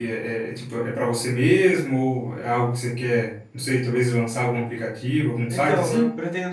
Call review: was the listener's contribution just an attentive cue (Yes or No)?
No